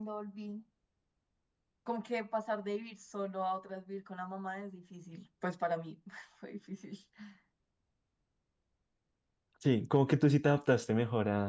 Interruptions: none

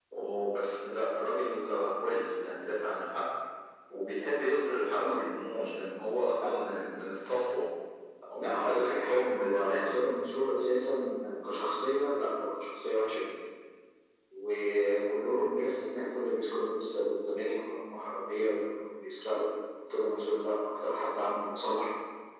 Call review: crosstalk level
present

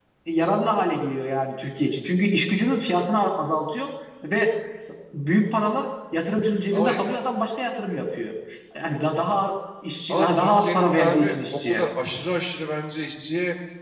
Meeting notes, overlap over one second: present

